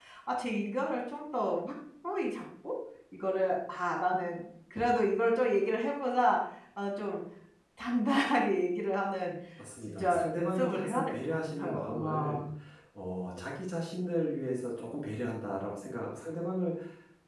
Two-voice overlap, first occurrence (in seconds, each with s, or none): 9.9 s